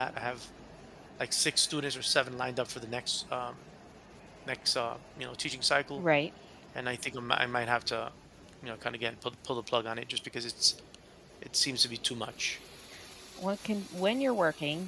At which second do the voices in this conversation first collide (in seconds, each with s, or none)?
none